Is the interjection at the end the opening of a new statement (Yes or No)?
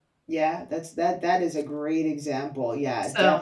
Yes